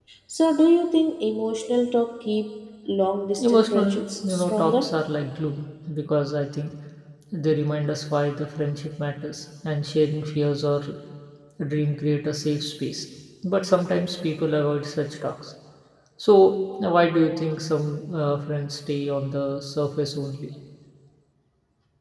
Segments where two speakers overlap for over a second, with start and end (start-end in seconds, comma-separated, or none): 3.4-4.9